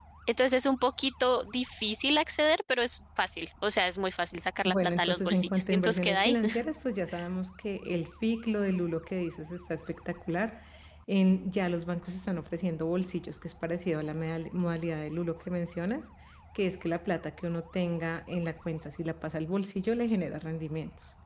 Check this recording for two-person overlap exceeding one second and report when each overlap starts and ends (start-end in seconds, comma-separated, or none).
4.6-6.4